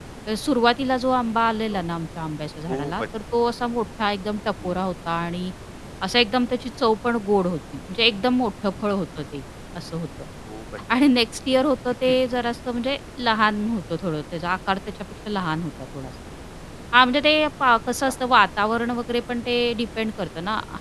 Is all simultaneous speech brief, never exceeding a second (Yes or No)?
Yes